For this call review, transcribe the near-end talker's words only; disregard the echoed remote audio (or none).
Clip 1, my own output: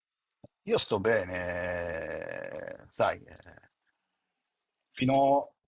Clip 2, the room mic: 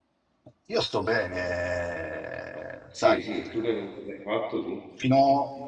Sì, sì, tu che cosa hai fatto tu?